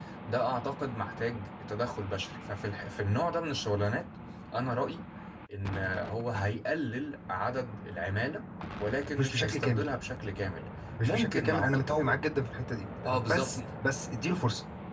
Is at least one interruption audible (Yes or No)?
Yes